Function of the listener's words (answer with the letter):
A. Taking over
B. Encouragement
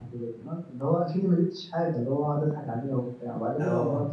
B